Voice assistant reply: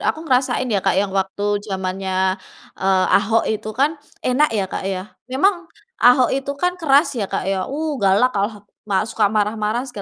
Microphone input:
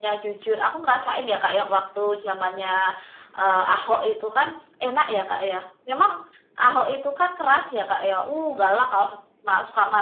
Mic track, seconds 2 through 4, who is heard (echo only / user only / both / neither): echo only